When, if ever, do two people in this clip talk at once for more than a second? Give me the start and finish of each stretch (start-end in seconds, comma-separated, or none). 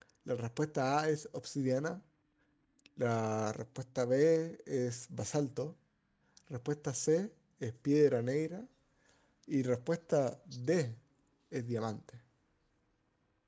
none